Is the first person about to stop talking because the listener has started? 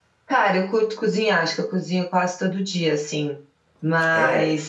No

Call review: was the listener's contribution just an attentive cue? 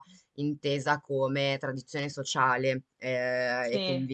Yes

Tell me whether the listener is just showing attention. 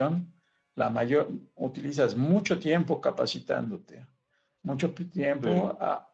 Yes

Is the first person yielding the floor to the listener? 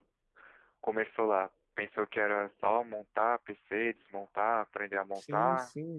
Yes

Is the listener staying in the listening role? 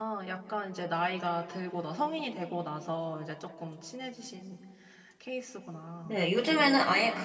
No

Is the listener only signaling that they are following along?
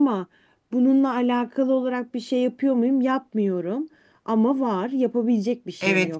No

